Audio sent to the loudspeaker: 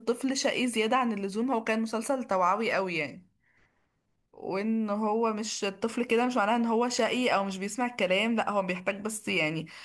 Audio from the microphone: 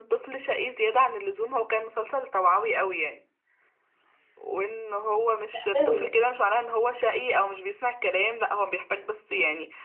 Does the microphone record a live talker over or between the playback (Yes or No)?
Yes